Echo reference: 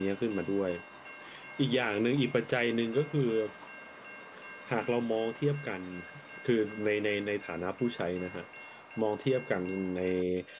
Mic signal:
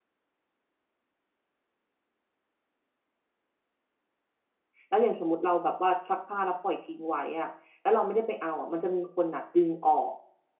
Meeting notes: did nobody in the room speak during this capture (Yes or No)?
No